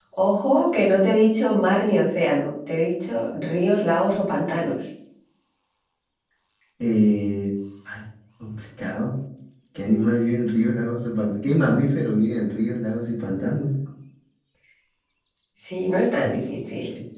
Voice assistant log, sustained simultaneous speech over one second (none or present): none